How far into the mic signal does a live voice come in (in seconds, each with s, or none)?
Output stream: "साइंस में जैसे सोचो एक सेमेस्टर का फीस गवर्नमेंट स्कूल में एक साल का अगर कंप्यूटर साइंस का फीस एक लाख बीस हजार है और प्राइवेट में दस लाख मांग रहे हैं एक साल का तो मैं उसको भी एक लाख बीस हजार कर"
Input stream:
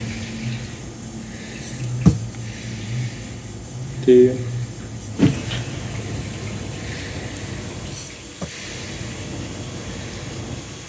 4.0 s